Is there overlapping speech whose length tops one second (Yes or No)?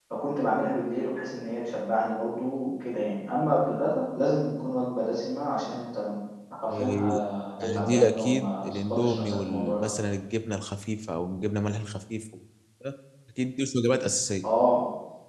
Yes